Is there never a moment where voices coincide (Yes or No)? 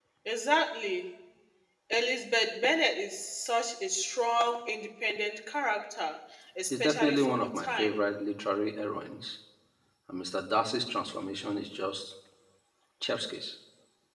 No